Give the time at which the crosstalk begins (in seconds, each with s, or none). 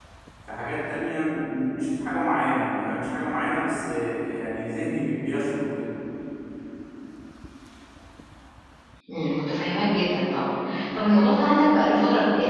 none